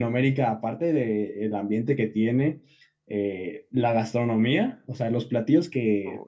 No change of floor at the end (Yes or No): Yes